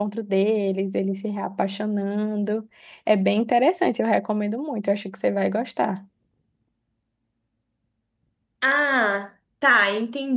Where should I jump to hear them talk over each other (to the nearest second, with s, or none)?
none